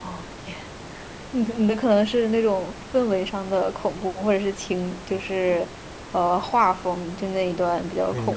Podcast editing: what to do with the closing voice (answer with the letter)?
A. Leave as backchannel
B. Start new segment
B